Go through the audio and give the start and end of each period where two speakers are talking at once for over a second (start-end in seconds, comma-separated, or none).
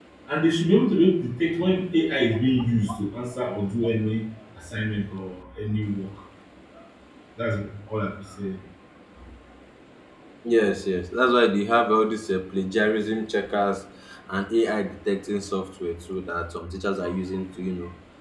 none